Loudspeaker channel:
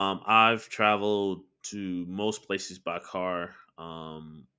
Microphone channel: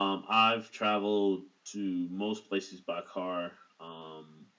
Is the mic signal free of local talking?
Yes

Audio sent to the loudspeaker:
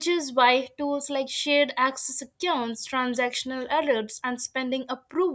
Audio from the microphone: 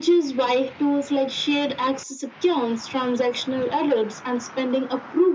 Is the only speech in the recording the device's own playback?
Yes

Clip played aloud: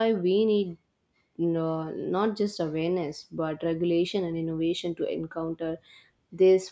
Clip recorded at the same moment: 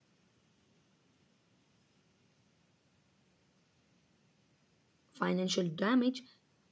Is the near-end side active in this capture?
Yes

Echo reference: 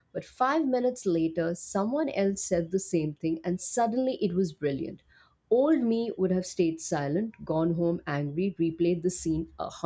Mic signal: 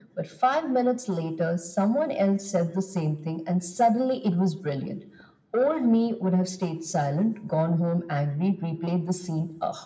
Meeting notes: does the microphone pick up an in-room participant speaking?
No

